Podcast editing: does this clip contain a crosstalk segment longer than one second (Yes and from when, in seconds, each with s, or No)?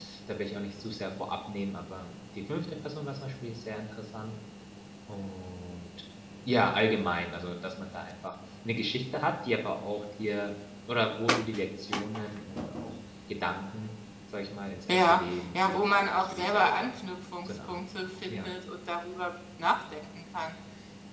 Yes, from 14.9 s